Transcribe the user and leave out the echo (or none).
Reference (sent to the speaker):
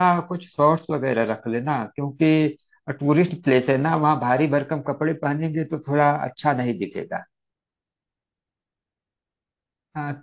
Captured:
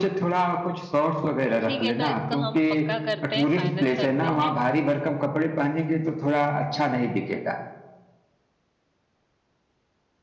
ठीक है तो इसको हम पक्का करते हैं फाइनल करते हैं